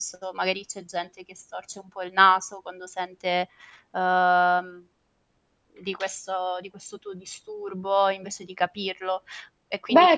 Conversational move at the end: listening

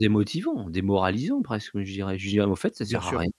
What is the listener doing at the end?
taking over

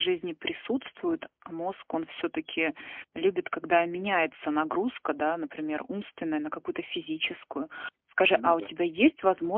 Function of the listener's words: listening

